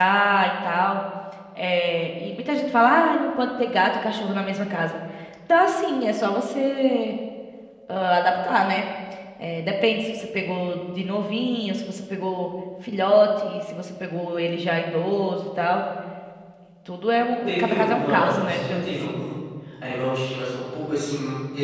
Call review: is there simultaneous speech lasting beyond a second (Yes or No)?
Yes